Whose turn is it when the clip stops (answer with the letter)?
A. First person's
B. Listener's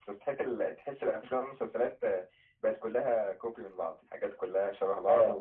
A